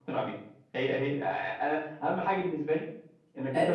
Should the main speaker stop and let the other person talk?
Yes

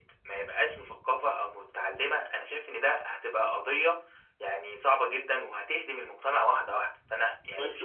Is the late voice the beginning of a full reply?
Yes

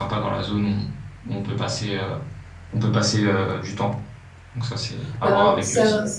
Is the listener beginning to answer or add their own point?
Yes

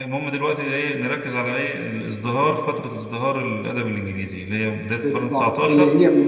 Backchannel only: No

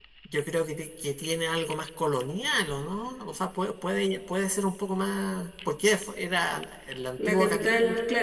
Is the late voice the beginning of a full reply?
Yes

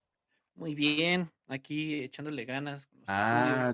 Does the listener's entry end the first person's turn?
Yes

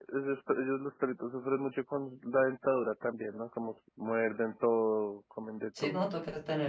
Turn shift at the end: Yes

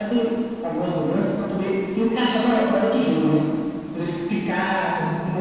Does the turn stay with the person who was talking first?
Yes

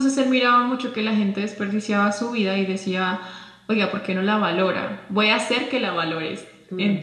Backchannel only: No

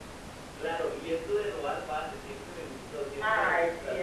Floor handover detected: Yes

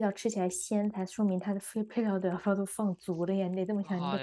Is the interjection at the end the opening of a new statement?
Yes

